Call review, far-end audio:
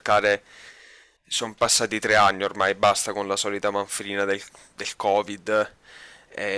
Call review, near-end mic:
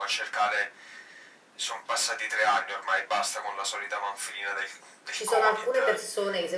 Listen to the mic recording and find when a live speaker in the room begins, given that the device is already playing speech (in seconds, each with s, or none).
5.1 s